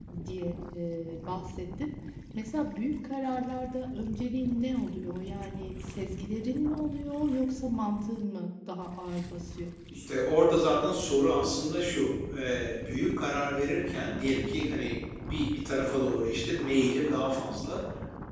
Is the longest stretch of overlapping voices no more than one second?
Yes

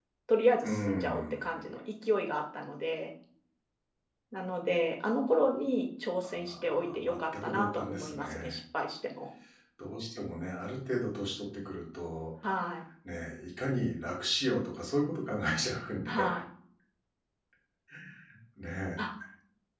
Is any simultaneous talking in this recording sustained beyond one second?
Yes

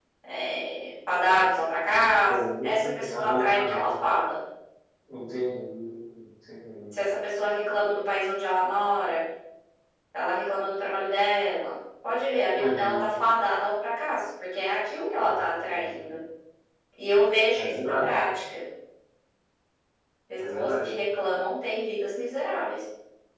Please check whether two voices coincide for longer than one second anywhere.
Yes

